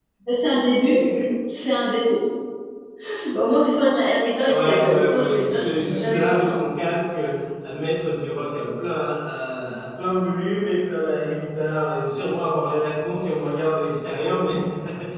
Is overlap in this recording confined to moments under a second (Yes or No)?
No